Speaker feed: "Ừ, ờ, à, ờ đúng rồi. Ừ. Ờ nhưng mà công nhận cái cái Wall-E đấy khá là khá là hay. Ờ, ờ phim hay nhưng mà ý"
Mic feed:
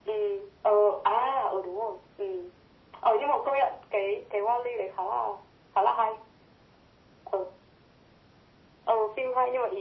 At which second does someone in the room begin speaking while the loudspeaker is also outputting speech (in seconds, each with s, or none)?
none